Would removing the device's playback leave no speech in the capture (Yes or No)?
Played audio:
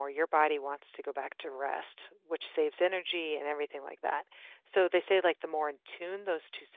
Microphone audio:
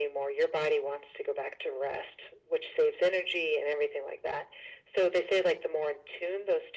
Yes